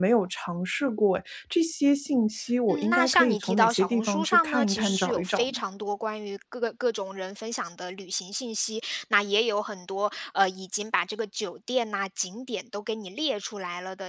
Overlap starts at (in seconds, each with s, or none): 2.7 s